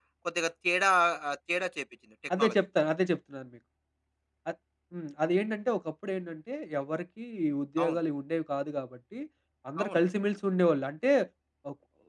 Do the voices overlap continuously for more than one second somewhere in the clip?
No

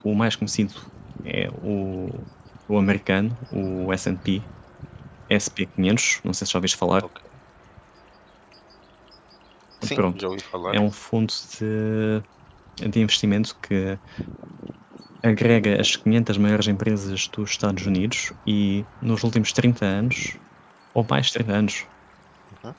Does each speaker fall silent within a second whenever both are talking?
Yes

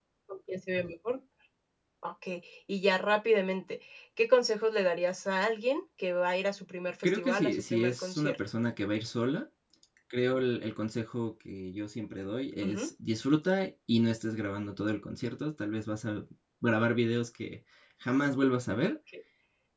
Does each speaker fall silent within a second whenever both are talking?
No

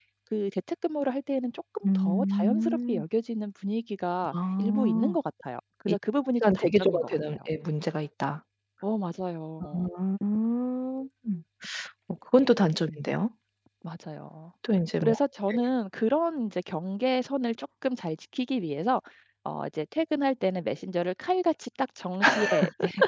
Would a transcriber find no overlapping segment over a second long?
No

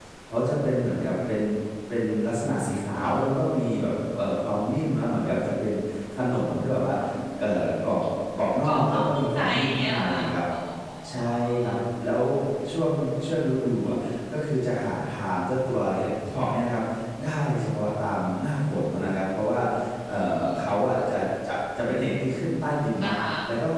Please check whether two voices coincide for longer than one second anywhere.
Yes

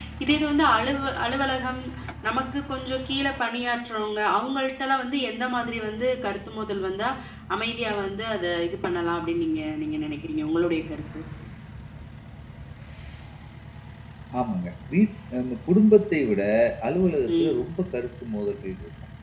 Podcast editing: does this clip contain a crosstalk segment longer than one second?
No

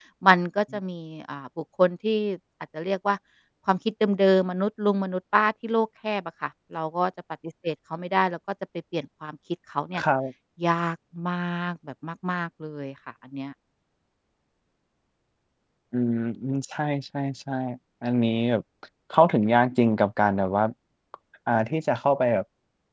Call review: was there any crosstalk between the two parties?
No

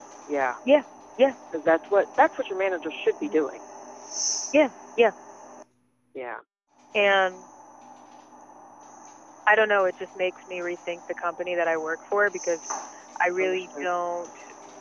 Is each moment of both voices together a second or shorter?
Yes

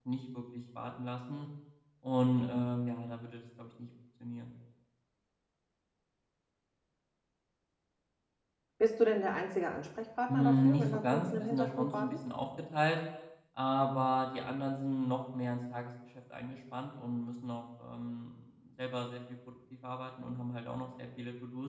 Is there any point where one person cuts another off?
Yes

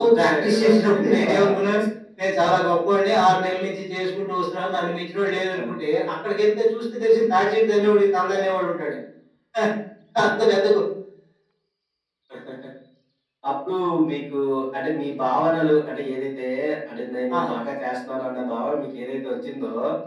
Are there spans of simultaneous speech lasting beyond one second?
Yes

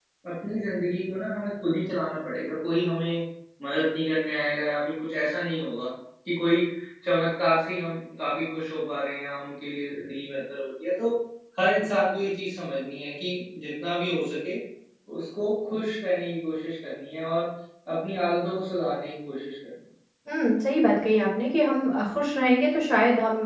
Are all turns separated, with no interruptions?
Yes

